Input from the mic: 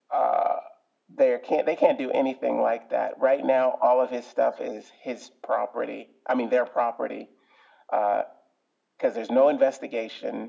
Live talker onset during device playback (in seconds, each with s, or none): none